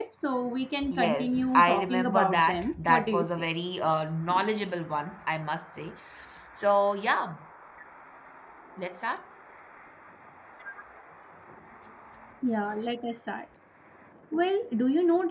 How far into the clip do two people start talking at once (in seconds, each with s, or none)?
0.9 s